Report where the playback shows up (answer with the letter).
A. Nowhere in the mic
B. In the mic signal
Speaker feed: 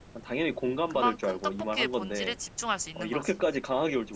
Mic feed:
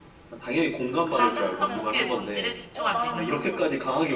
B